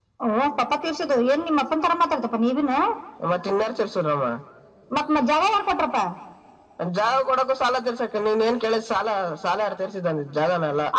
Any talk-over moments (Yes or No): No